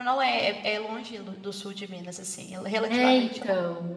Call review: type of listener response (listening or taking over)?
taking over